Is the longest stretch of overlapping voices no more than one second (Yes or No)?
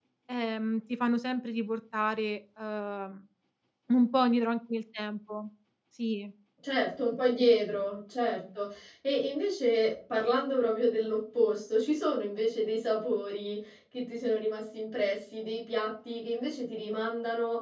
Yes